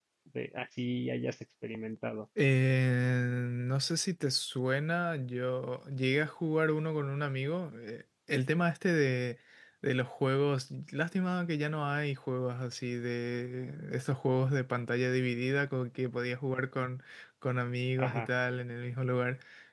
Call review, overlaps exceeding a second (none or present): none